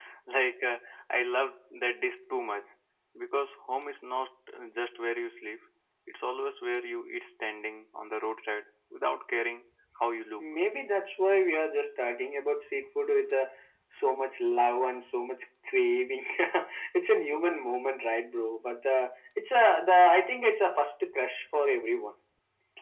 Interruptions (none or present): none